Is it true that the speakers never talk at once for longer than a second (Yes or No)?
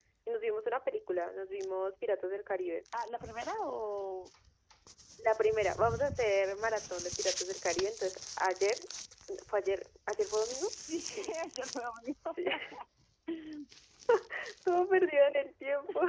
Yes